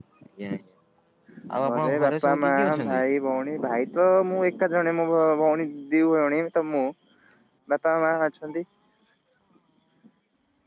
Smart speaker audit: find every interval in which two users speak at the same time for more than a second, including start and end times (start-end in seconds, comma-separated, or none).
1.6-3.0